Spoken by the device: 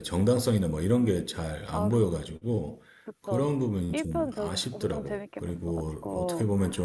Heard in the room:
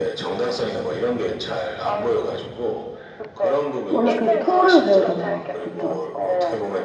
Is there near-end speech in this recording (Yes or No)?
Yes